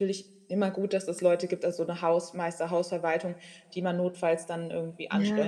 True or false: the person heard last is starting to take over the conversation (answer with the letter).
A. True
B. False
A